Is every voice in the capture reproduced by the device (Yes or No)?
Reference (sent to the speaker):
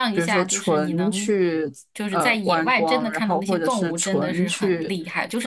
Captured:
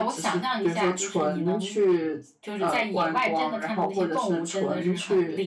Yes